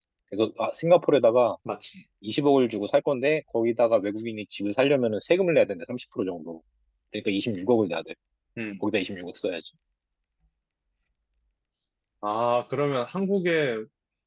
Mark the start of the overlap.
none

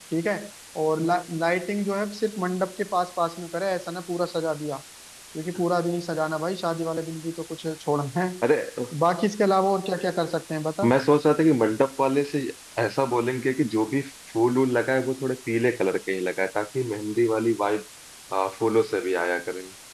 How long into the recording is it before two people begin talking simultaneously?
none

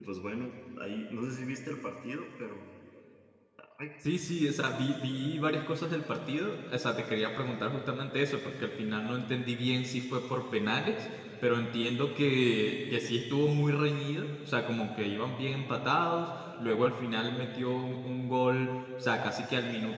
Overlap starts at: none

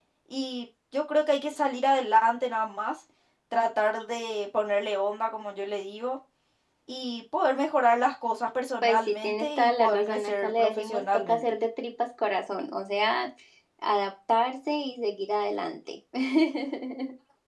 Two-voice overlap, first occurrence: 8.8 s

